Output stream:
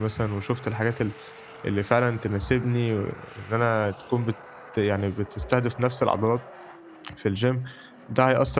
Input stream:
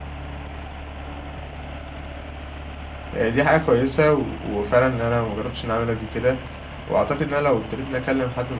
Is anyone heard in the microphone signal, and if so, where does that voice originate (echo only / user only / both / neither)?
user only